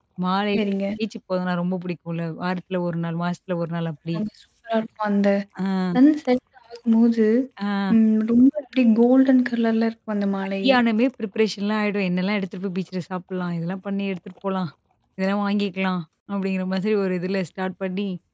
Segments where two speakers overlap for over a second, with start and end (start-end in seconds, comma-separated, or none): none